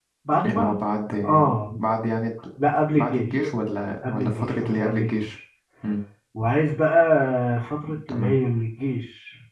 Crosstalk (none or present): present